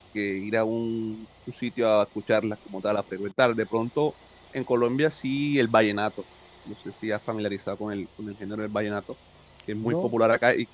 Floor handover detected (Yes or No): No